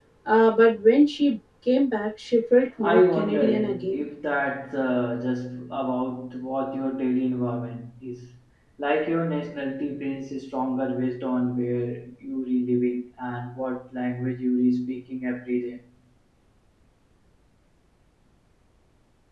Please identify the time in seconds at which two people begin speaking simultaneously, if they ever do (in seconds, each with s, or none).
2.8 s